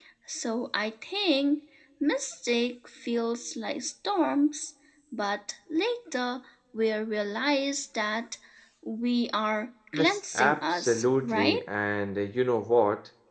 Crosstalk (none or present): present